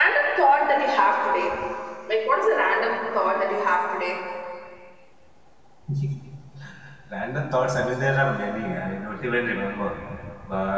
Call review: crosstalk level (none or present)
none